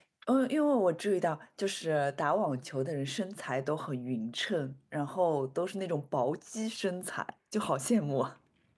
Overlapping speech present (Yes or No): No